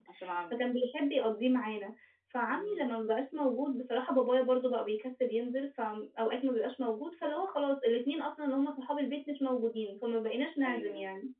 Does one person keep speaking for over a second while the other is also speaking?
No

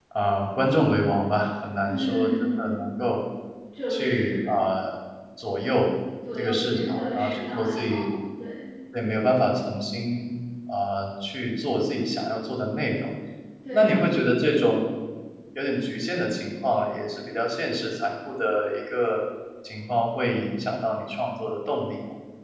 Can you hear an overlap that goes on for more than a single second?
Yes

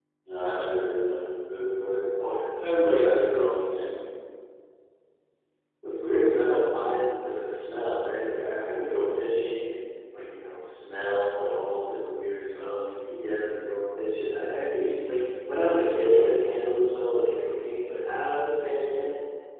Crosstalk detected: No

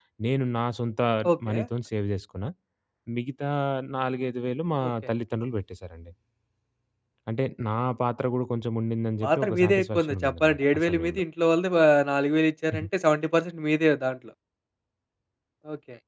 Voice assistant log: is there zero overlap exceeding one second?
No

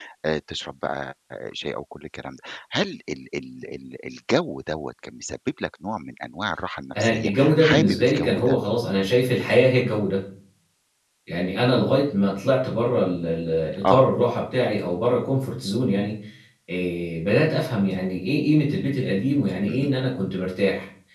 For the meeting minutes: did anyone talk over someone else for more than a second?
Yes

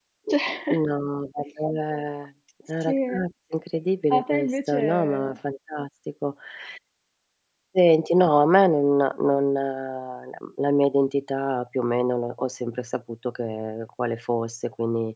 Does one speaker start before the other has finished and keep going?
Yes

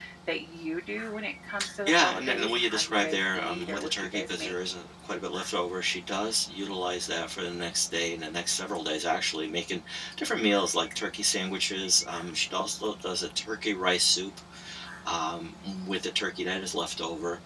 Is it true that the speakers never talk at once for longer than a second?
No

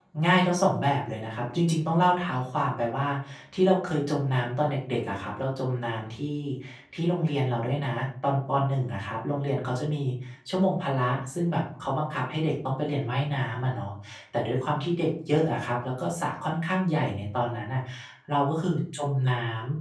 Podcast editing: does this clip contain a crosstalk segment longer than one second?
No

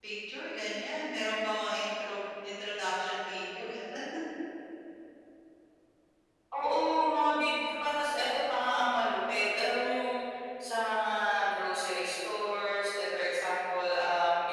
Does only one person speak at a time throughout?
Yes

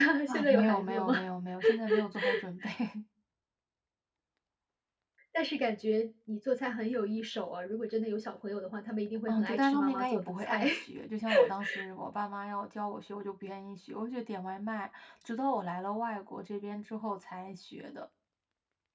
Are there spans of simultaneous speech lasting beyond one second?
Yes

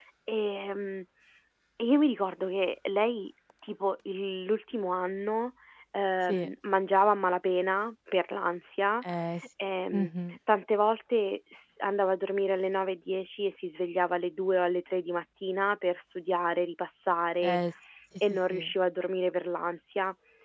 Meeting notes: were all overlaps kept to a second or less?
Yes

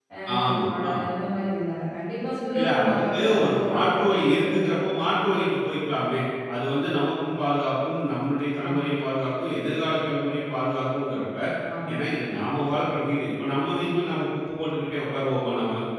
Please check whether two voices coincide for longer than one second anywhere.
Yes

